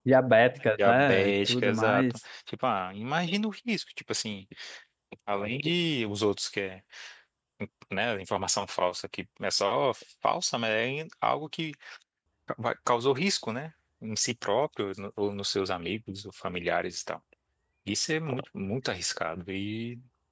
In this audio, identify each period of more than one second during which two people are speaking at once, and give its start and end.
0.8-2.2

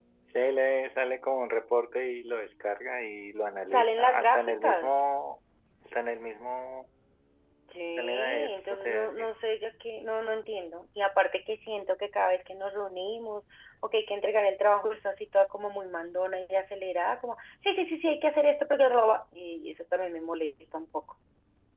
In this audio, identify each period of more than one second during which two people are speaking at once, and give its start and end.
3.7-5.0, 8.0-9.3

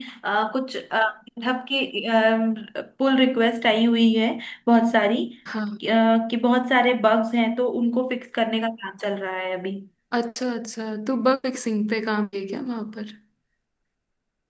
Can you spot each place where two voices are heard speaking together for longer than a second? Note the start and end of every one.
none

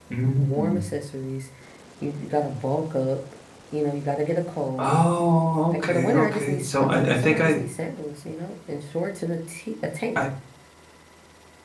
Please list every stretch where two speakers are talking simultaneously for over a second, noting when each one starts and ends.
5.7-7.6

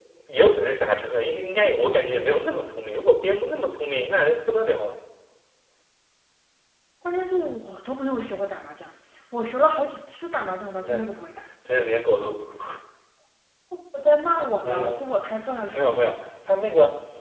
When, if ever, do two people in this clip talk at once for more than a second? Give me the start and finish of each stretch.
none

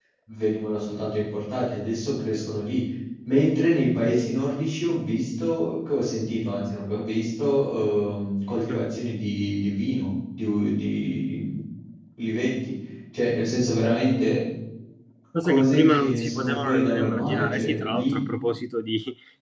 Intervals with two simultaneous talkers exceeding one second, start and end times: 15.4-18.2

